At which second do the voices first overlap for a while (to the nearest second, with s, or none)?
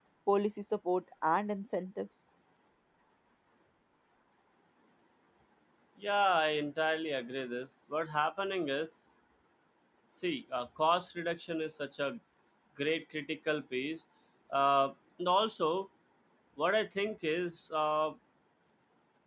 none